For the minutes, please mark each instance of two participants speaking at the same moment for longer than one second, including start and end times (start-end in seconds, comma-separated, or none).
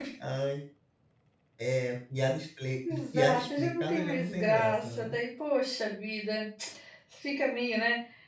2.9-5.2